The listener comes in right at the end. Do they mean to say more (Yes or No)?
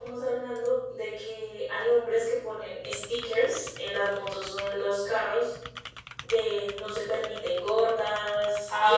Yes